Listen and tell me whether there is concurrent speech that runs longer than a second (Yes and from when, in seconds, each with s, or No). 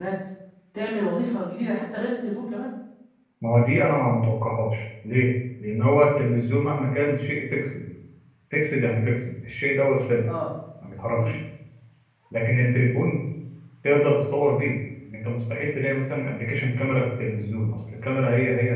No